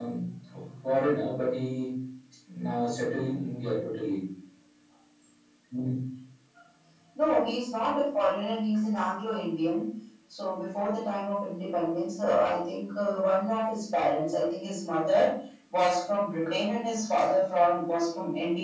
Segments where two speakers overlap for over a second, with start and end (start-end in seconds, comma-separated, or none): none